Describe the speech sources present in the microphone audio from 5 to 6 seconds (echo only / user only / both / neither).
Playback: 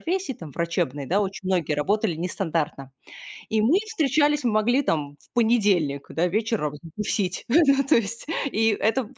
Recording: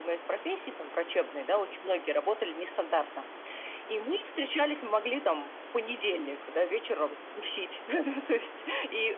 echo only